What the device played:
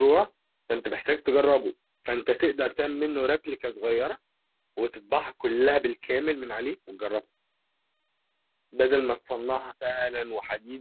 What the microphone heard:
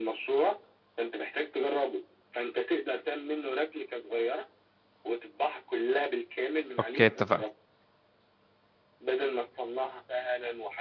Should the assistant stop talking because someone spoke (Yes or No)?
Yes